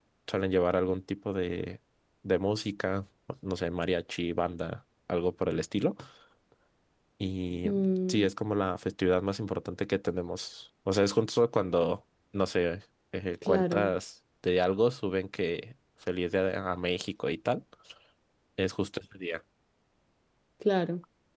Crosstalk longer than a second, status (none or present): none